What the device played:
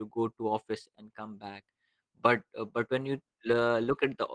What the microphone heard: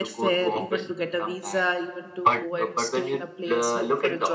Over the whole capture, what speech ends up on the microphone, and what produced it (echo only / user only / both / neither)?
both